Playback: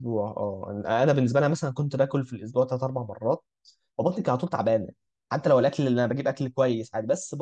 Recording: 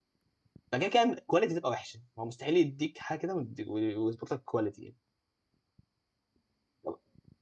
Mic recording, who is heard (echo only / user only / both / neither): user only